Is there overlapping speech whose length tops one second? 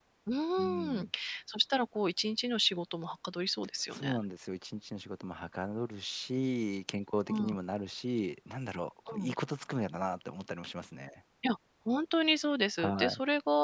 No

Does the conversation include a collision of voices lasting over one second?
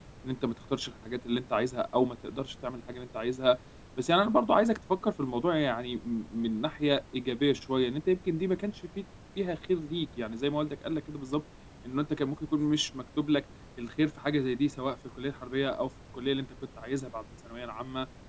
No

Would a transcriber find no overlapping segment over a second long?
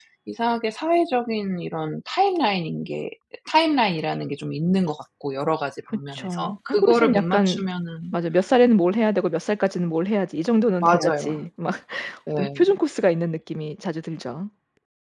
No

